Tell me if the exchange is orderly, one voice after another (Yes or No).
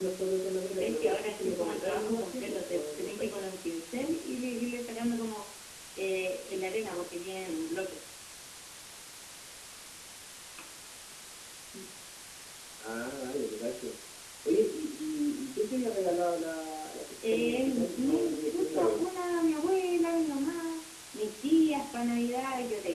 No